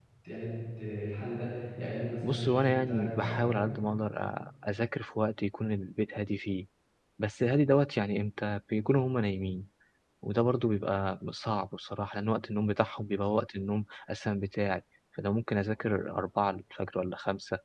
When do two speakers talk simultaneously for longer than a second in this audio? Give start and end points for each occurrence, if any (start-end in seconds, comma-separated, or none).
2.2-3.7